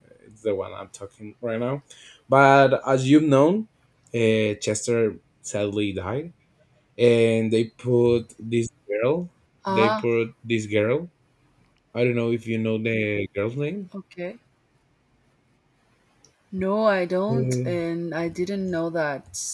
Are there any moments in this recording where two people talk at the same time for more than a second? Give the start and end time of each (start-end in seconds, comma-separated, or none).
none